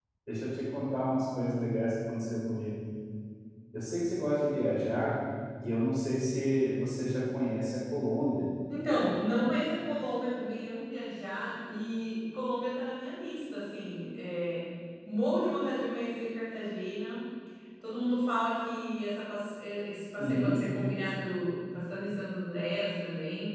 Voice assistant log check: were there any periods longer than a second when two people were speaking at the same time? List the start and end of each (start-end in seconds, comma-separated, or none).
none